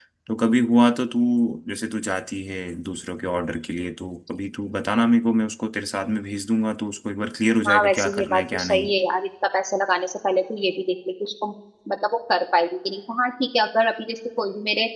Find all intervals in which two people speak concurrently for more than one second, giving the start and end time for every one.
7.7-8.9

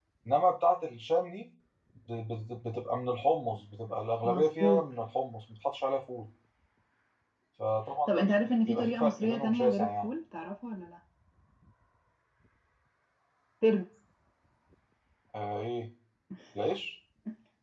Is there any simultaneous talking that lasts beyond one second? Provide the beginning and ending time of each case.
8.1-10.1

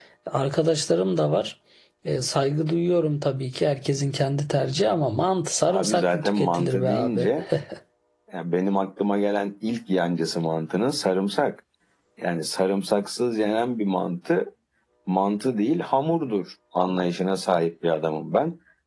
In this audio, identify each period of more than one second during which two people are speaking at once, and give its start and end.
5.7-7.3

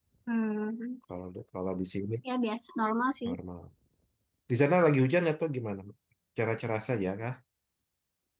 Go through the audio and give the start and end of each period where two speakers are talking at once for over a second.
none

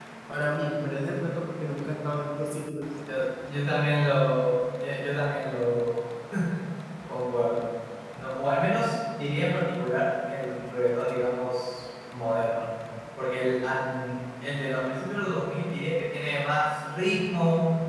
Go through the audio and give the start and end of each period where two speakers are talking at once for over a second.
none

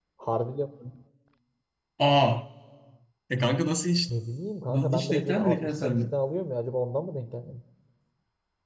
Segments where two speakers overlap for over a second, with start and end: 4.7-6.0

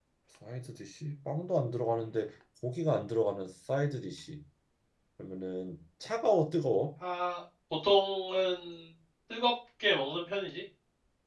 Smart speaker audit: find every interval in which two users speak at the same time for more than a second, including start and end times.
none

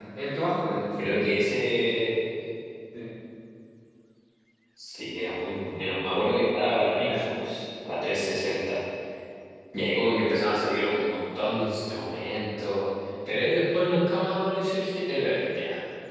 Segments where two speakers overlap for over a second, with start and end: none

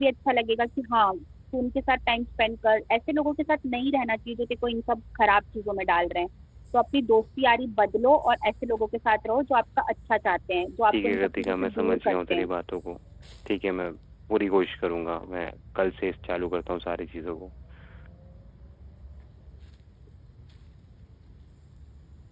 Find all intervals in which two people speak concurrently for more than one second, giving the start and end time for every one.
10.9-12.5

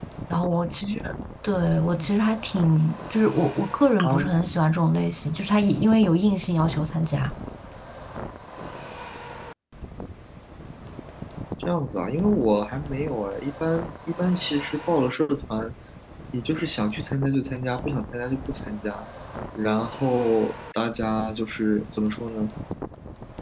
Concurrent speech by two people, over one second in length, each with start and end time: none

